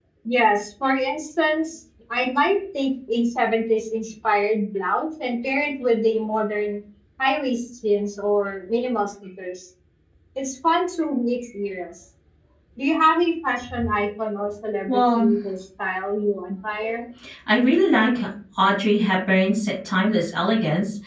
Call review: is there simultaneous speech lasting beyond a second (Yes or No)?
No